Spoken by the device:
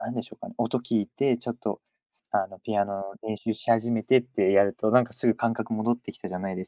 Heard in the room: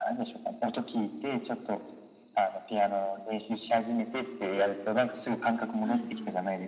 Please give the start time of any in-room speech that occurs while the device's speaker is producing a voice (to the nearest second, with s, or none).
6 s